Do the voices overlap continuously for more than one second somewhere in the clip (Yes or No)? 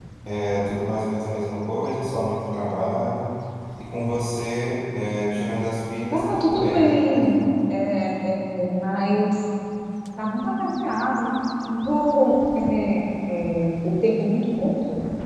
Yes